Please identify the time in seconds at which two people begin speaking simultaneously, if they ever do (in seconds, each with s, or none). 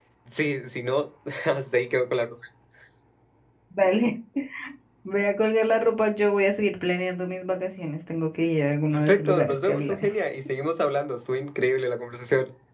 8.9 s